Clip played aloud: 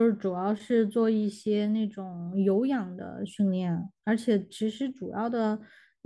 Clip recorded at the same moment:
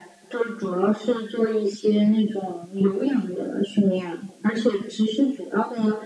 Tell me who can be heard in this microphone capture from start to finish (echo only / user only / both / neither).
echo only